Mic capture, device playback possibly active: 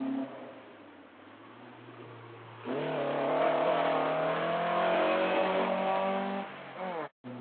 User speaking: No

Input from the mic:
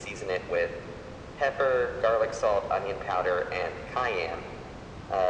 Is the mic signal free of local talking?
Yes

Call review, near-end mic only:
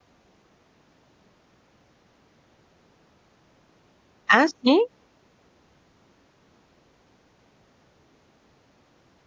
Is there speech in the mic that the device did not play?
Yes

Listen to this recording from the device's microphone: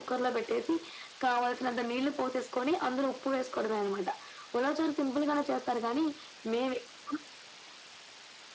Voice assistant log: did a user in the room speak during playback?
No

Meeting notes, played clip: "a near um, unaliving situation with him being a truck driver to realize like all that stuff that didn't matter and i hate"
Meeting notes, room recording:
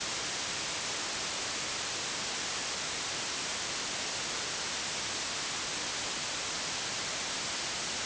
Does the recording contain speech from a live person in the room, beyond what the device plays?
No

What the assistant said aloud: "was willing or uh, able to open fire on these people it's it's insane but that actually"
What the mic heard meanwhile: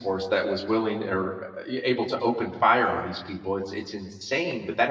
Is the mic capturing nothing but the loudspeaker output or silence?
Yes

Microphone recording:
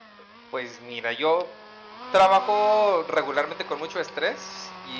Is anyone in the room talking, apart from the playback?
Yes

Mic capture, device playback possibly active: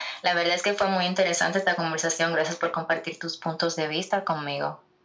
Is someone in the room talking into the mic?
No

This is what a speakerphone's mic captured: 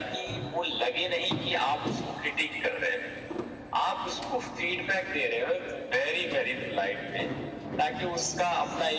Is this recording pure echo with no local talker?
Yes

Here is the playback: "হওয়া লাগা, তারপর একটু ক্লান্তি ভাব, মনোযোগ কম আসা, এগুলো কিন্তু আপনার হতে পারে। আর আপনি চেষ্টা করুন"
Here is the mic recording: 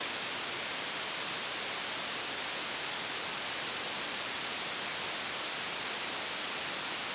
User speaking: No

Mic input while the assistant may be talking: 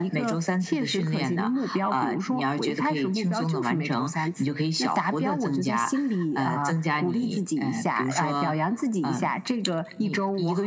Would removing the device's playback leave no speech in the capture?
Yes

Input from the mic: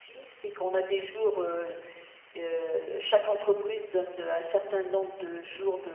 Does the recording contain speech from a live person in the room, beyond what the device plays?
Yes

